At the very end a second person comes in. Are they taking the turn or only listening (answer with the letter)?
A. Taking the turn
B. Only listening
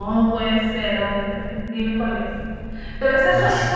B